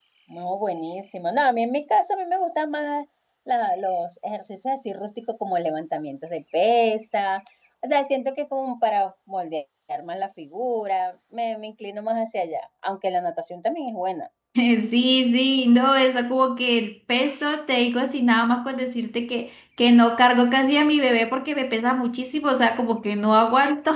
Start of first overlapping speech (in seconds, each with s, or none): none